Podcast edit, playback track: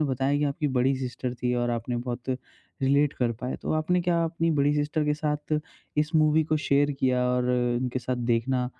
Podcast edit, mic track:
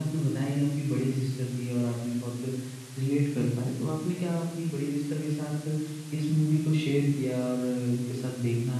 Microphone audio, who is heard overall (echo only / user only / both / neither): echo only